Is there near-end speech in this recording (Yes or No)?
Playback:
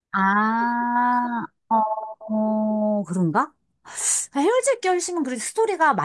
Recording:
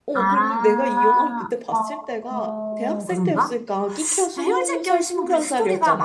Yes